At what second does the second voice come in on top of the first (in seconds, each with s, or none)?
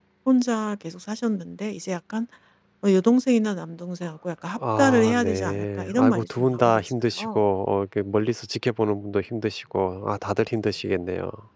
4.6 s